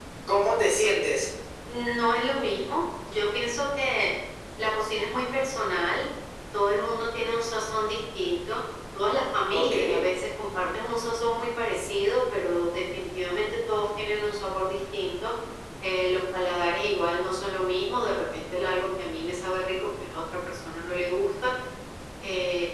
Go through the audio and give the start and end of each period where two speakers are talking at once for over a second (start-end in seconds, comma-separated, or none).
none